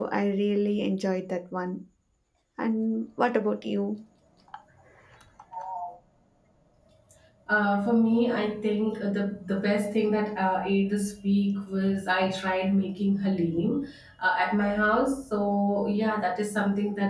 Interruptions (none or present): none